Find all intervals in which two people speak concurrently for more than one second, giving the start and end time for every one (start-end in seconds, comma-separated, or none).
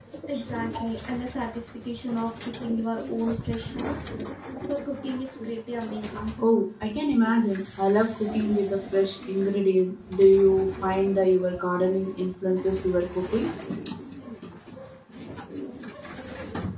none